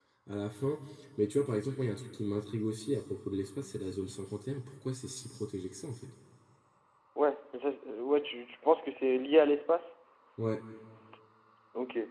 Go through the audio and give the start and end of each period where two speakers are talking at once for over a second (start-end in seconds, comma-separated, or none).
none